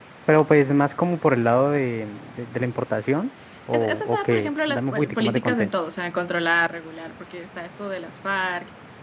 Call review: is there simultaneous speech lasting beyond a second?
Yes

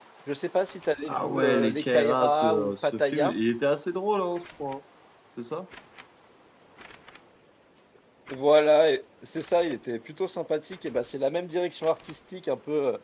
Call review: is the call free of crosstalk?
No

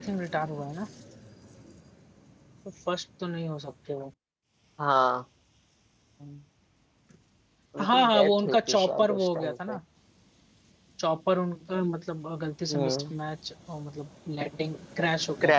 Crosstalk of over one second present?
Yes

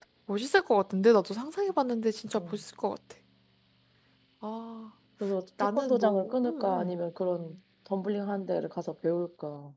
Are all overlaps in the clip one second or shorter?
No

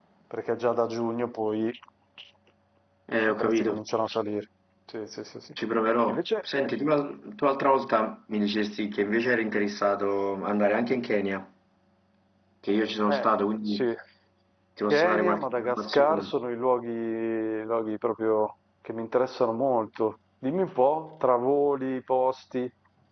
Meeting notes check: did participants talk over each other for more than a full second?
Yes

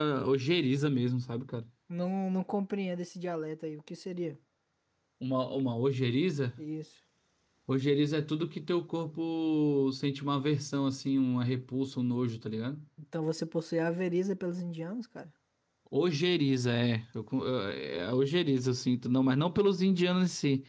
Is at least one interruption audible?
No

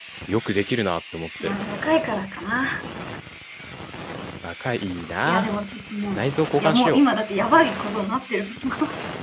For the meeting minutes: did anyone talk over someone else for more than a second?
No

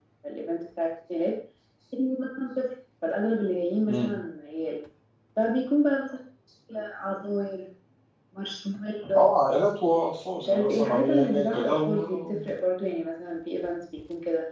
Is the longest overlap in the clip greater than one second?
Yes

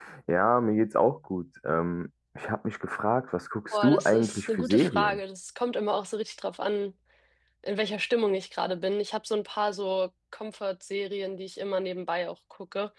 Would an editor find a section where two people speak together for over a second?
Yes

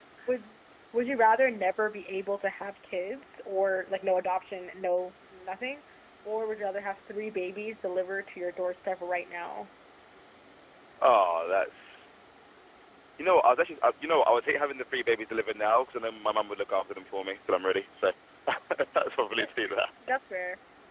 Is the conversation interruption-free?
Yes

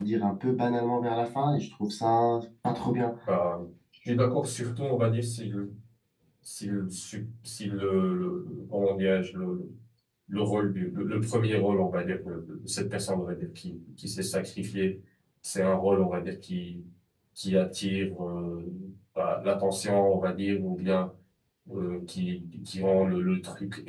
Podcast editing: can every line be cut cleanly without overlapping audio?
Yes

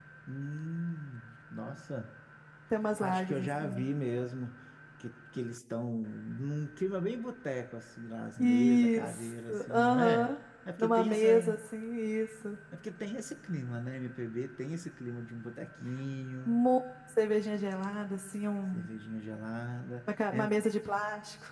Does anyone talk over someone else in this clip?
Yes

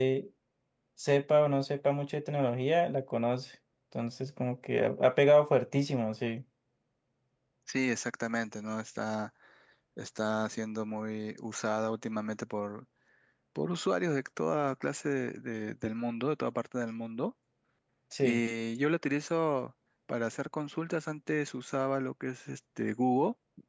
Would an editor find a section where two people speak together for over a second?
No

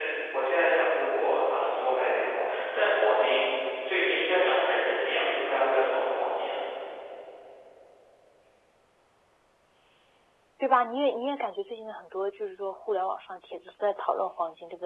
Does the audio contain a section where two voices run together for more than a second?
No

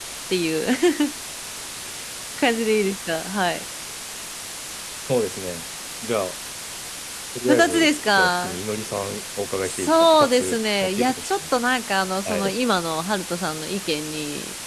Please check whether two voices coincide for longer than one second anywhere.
Yes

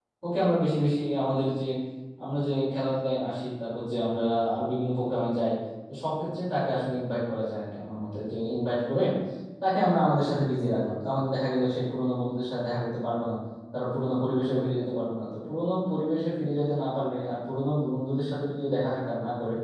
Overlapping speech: No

